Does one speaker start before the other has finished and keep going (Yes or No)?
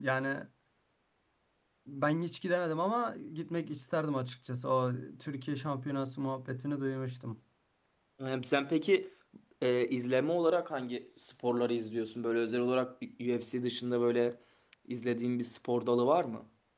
No